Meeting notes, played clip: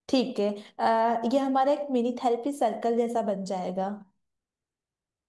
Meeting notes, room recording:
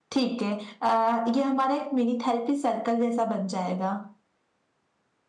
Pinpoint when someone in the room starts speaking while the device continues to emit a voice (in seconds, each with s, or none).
none